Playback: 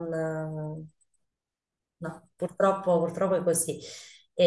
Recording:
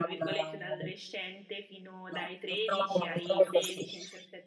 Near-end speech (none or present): present